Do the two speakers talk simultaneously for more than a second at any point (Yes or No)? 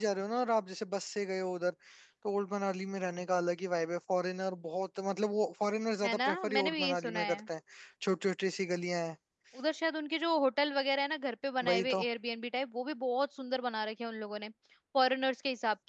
Yes